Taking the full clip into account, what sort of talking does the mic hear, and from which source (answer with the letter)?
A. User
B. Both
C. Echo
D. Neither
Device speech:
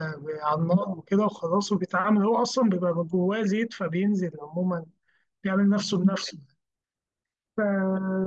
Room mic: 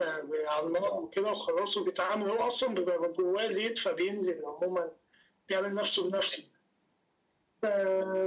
C